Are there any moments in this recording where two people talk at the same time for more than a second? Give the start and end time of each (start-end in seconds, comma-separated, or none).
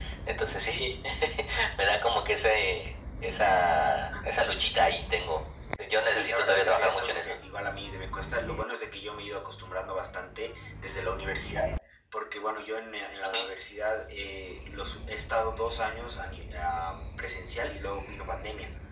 6.0-7.4